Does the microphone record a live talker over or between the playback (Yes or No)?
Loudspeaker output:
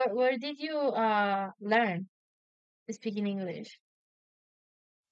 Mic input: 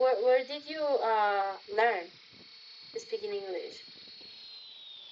No